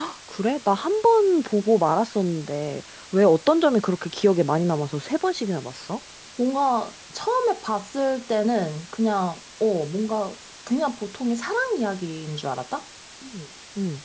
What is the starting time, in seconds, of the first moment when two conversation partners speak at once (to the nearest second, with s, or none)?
none